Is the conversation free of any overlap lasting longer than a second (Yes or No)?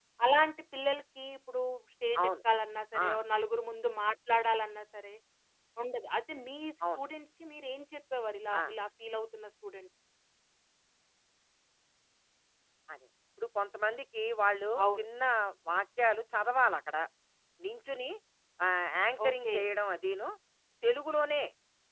Yes